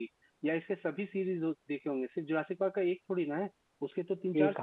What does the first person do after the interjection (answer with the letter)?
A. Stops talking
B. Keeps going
A